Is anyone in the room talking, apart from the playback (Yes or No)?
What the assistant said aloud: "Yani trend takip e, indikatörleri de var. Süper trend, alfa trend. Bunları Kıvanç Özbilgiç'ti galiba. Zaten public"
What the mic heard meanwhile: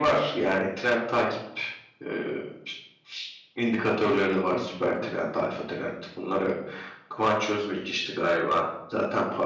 Yes